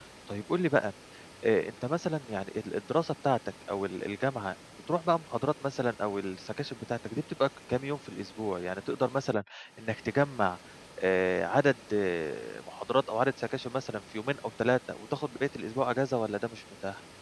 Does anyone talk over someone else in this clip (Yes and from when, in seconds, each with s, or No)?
No